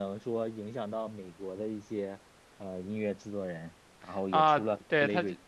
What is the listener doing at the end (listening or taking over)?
taking over